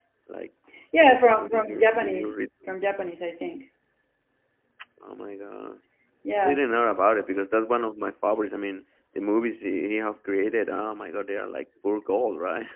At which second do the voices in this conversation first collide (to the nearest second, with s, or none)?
1 s